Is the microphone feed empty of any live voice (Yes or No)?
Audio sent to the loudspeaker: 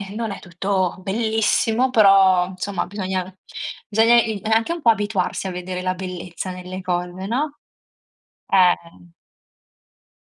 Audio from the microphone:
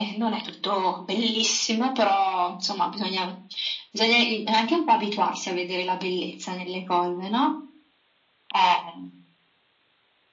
Yes